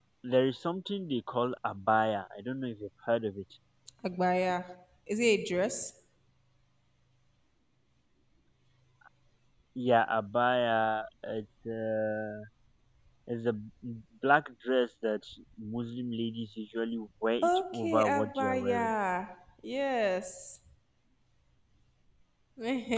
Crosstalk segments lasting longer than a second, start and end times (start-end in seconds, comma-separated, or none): 17.4-18.9